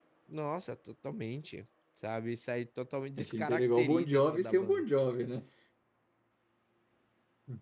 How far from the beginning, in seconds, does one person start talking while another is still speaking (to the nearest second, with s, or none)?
3 s